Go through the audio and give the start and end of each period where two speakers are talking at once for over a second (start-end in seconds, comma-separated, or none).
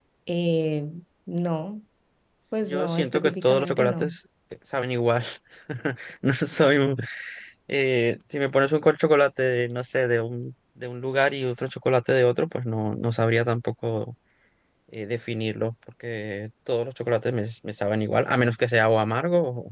2.7-4.2